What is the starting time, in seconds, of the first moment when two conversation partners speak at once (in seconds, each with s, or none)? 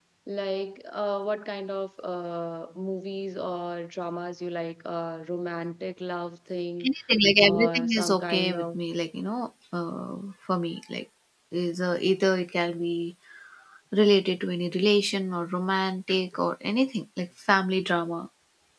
7.4 s